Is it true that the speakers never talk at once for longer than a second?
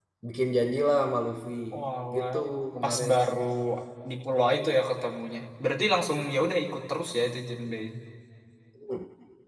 Yes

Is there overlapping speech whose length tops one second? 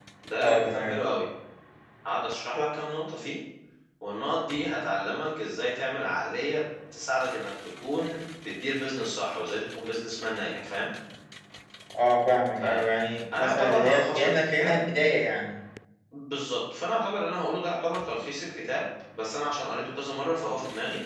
Yes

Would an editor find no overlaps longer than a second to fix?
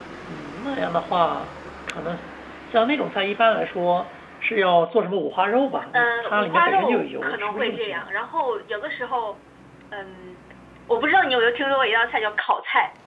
No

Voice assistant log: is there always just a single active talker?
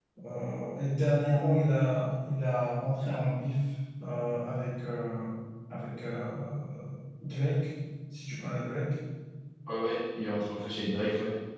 Yes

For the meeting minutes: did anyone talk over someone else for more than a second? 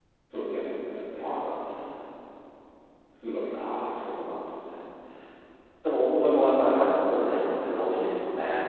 No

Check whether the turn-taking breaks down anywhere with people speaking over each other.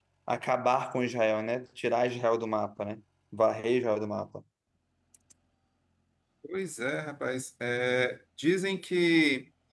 No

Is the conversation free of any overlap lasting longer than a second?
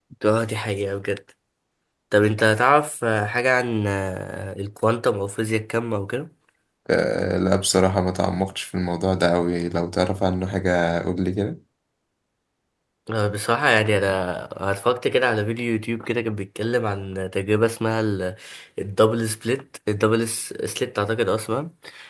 Yes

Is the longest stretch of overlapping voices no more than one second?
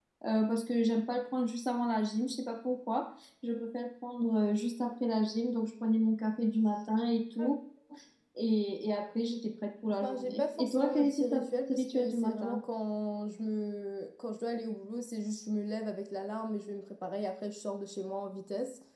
No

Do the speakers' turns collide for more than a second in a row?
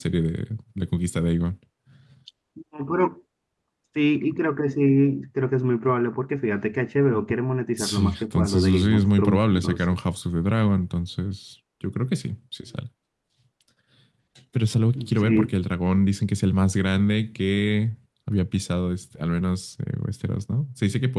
Yes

